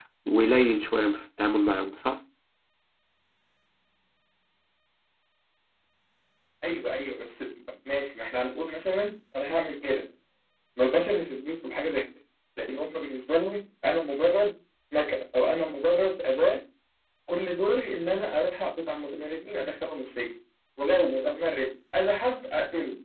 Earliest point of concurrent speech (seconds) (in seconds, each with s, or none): none